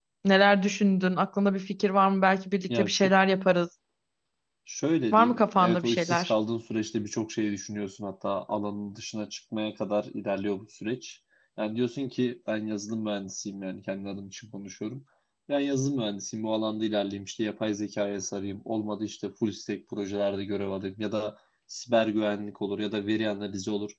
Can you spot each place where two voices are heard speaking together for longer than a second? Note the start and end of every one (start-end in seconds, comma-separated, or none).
5.1-6.3